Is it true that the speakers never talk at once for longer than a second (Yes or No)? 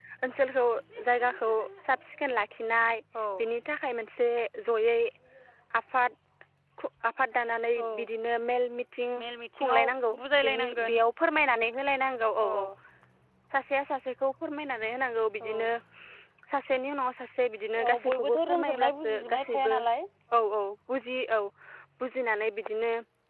No